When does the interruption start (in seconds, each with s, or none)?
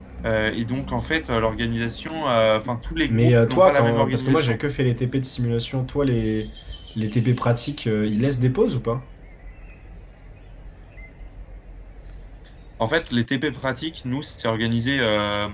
3.1 s